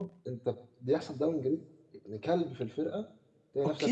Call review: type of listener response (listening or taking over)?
taking over